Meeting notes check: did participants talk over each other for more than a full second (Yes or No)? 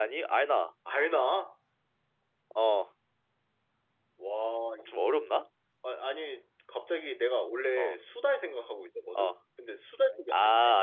No